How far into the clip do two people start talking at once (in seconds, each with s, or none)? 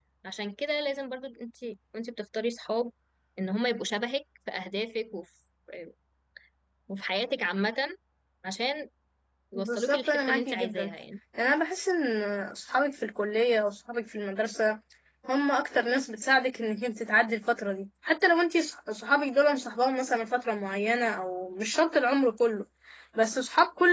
9.6 s